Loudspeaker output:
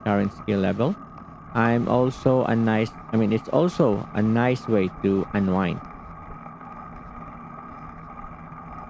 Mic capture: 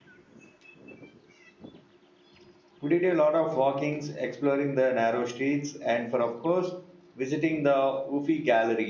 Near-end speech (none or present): present